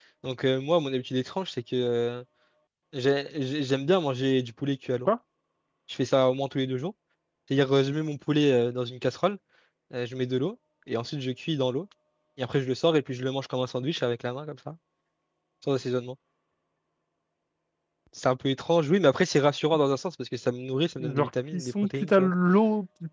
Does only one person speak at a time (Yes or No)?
No